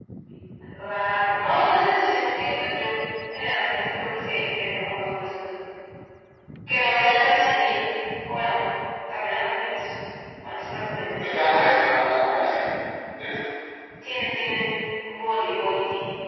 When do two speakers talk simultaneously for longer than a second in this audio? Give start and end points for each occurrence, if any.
none

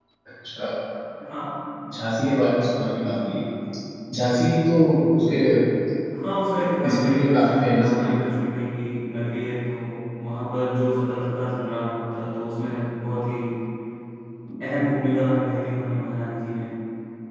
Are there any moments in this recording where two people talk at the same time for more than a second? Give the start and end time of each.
6.8-8.1

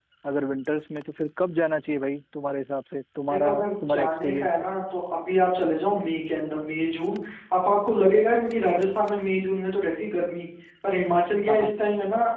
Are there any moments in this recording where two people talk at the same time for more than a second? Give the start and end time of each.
3.3-4.6

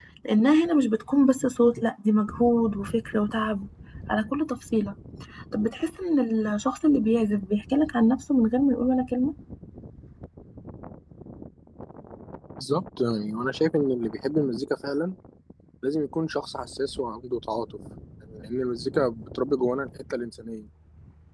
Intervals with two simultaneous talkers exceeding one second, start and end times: none

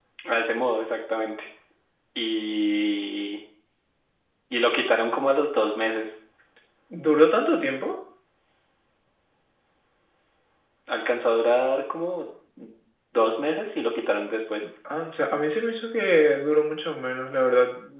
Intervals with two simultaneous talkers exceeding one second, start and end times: none

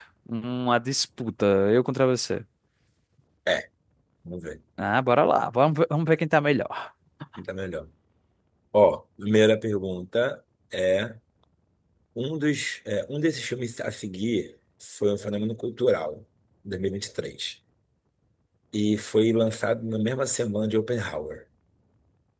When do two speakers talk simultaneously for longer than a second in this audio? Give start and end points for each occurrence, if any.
none

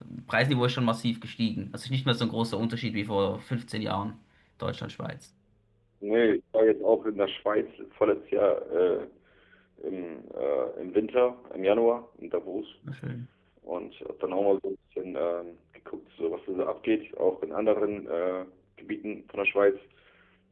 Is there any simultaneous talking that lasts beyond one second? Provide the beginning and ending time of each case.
none

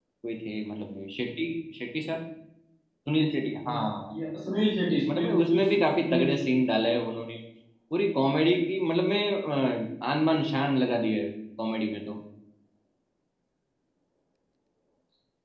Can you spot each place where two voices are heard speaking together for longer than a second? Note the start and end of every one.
5.1-6.3

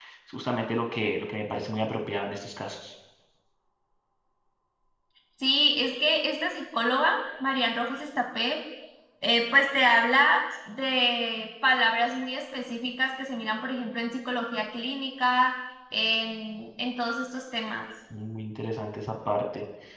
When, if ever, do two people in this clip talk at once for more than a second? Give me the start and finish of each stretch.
none

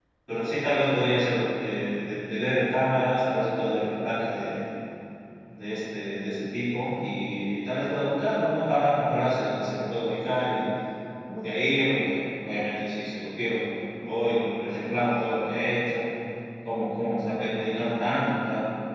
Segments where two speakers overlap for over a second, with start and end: none

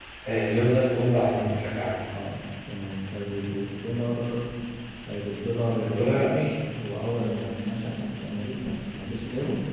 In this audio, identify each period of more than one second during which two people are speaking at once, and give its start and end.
none

